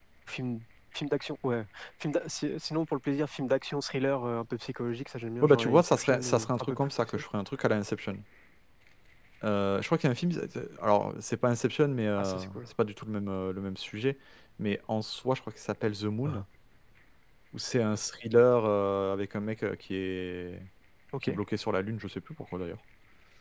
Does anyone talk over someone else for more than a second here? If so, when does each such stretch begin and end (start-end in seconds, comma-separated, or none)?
5.4-7.2